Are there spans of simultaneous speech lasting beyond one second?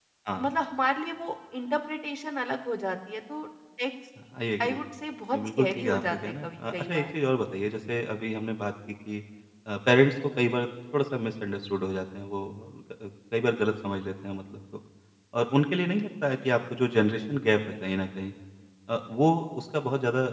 Yes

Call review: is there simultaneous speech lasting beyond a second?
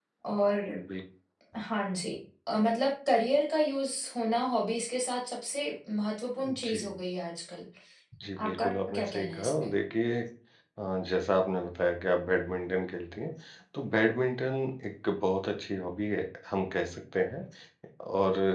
Yes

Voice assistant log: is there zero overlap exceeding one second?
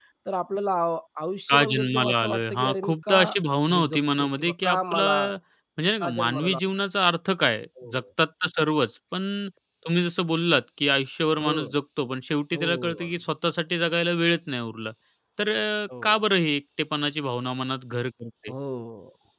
No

